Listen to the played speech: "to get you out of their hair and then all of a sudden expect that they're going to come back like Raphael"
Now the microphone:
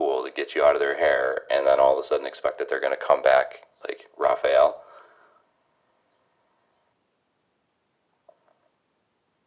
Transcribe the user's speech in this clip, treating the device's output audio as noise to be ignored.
none

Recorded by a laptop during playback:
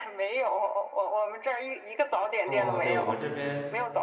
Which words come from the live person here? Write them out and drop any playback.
哦，对，我们这边，

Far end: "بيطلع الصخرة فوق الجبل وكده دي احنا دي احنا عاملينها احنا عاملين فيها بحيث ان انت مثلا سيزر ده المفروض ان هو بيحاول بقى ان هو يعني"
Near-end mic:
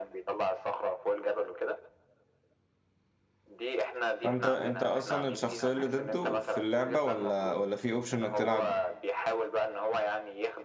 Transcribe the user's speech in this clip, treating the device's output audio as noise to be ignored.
فانت انت اصلا الشخصية اللي ضده في اللعبة ولا ولا في اوبشن انك تلعب

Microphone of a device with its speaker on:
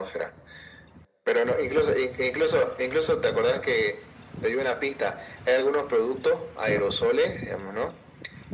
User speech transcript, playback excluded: none

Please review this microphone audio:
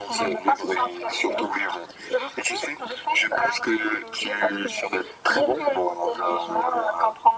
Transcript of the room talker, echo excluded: none

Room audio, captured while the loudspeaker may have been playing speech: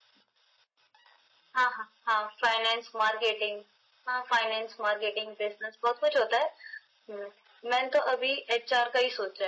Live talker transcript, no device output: none

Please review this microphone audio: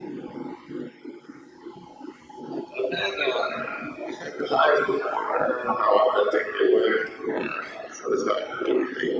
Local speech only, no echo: none

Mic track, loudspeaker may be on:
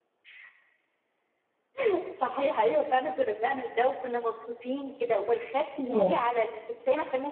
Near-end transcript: اه

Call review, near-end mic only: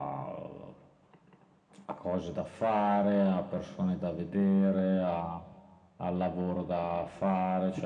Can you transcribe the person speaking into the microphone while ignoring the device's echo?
none

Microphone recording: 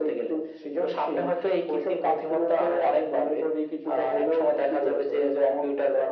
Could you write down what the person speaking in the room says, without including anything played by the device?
none

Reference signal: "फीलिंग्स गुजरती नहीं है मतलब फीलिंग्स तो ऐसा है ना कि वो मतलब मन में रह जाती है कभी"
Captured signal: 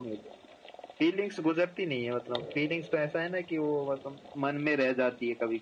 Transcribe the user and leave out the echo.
none

